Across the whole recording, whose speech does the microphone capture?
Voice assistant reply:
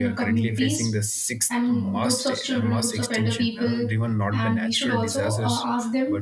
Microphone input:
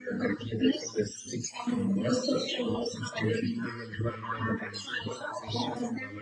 both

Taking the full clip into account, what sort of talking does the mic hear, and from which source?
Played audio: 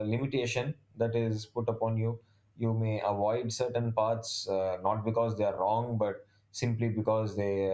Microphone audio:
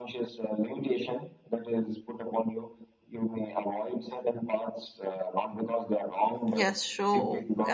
both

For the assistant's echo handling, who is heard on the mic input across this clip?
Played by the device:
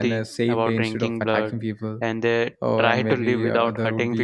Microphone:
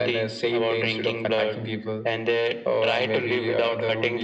echo only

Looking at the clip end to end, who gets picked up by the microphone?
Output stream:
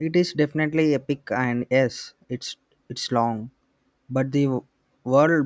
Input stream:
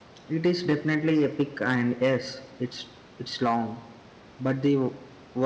echo only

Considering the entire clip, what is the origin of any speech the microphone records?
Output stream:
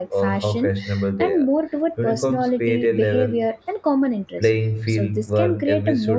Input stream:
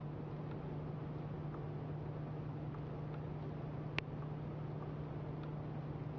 neither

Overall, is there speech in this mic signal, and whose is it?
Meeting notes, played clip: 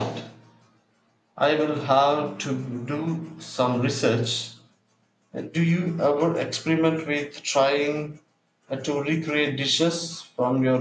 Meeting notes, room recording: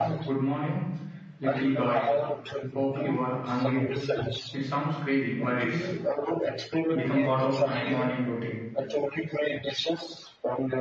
both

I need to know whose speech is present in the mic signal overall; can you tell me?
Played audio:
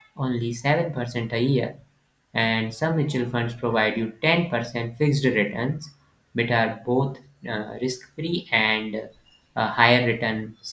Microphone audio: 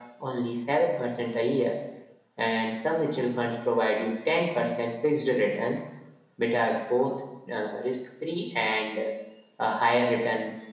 echo only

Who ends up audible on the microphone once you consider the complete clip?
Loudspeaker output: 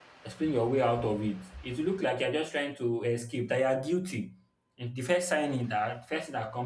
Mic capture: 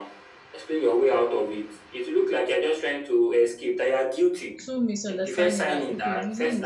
both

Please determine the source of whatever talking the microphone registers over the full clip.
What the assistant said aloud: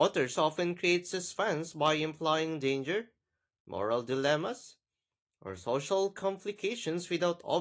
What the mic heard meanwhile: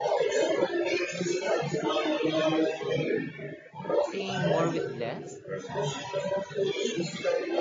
both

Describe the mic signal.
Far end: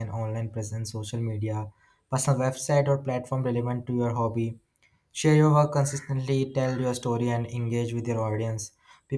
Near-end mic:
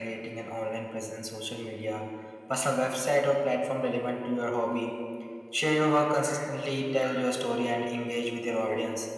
echo only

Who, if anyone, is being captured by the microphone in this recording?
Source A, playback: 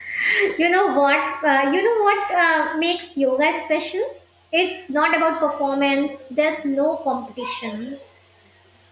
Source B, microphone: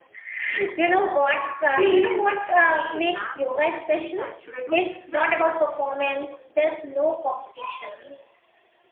both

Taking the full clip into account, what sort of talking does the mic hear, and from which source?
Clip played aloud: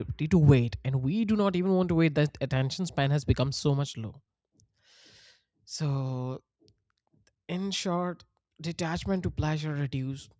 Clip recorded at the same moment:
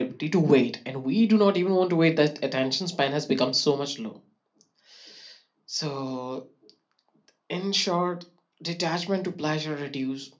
echo only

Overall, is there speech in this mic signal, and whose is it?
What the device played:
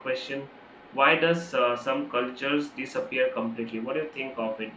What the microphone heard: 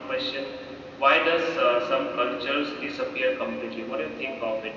echo only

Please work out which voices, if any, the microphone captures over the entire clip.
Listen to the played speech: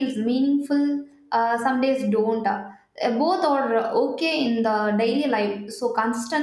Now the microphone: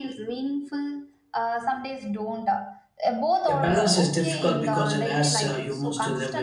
both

